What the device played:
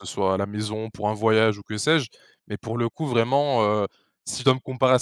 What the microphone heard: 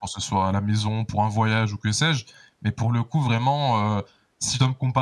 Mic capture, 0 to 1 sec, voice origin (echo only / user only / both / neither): echo only